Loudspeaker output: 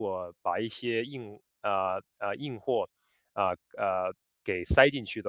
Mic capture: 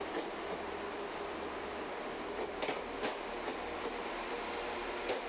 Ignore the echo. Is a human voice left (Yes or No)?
No